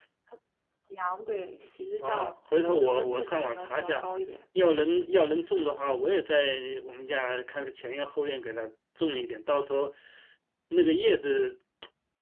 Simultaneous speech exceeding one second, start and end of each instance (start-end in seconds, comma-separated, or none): 2.0-4.0